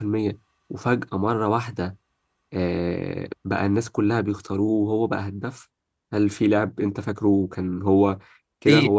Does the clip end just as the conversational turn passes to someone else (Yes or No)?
Yes